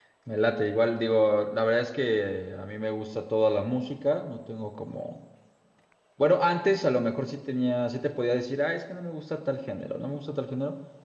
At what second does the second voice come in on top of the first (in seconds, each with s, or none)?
none